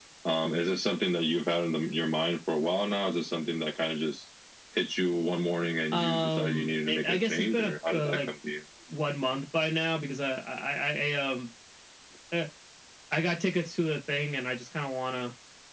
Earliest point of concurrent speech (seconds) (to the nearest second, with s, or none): 6 s